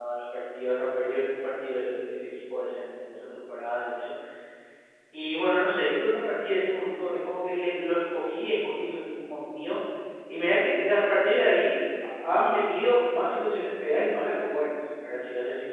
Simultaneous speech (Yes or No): No